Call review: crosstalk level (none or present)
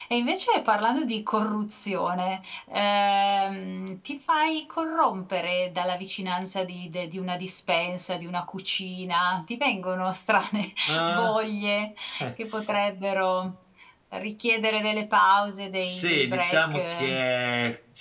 present